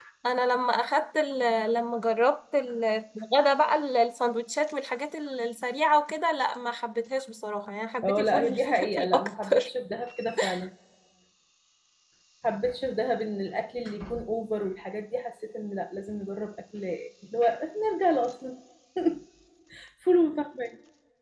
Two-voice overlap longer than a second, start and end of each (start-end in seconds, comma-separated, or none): 8.0-9.7